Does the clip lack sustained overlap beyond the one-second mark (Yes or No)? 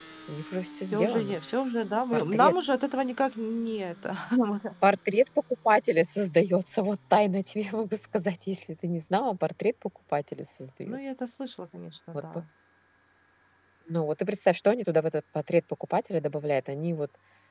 Yes